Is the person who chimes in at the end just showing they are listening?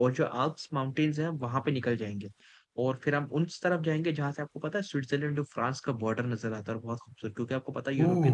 Yes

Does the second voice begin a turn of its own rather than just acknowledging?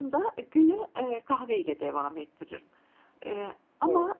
No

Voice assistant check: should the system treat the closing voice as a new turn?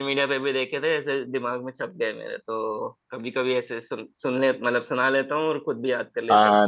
Yes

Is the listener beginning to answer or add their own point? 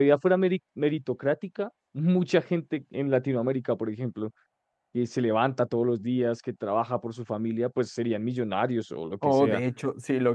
Yes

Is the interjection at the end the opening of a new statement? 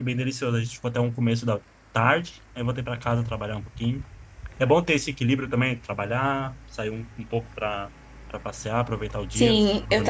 Yes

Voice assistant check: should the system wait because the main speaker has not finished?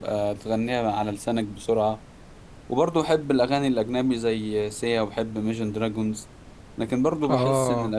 Yes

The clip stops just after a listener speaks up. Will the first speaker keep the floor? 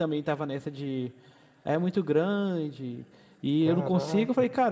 Yes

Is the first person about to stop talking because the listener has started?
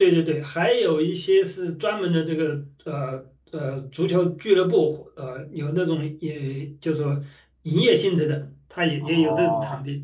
Yes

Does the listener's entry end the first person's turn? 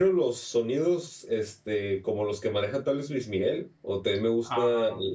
No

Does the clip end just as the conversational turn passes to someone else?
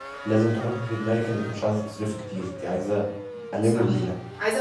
Yes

